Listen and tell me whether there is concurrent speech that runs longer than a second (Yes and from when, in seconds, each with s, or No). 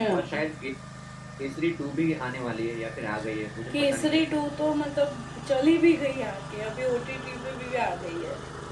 No